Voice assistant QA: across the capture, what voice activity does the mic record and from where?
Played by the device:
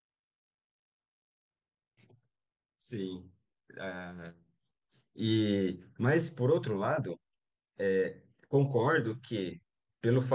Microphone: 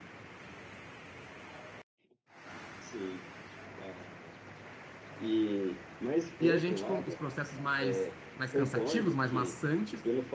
both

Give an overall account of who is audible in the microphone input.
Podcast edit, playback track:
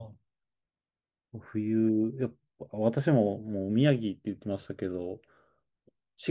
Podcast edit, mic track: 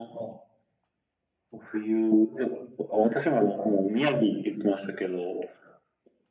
echo only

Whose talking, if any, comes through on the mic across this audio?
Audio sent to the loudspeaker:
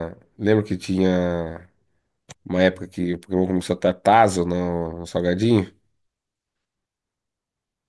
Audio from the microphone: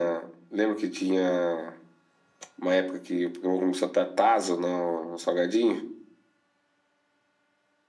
echo only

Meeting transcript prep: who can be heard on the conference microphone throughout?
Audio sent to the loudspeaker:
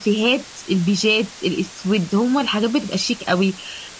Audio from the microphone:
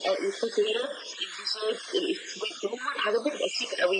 echo only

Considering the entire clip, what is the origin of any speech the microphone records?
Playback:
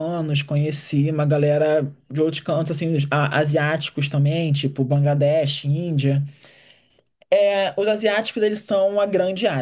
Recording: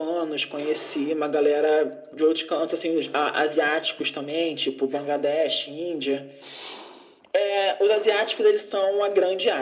echo only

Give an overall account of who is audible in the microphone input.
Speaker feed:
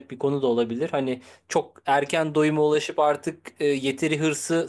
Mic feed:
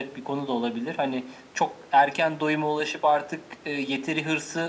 echo only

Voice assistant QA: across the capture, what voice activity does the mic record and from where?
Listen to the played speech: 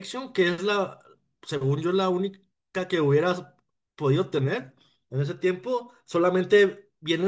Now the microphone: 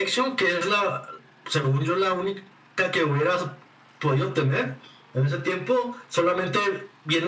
echo only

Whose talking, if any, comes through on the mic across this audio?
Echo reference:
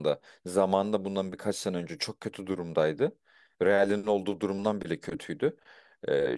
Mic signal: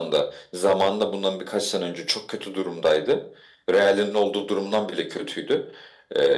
echo only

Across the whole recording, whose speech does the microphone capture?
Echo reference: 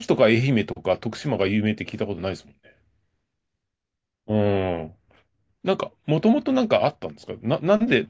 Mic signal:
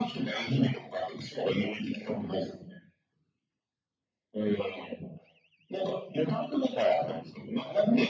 both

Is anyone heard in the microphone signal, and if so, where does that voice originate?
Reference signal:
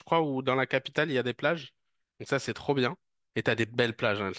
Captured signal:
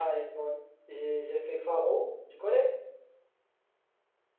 user only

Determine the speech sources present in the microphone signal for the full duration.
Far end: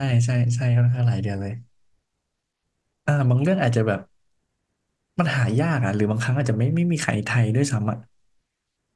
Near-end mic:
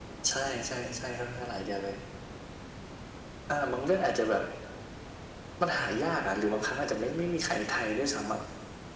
echo only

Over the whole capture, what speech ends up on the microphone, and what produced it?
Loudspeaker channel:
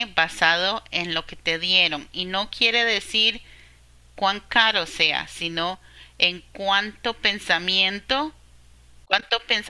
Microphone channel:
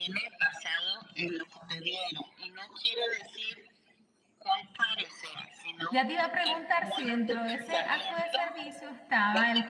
both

